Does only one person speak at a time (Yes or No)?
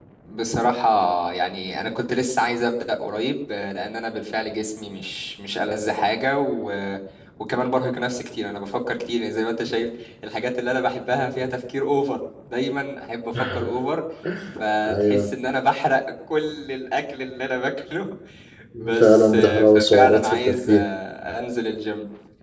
No